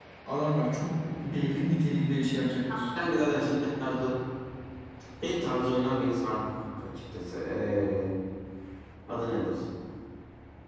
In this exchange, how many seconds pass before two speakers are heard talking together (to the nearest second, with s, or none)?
none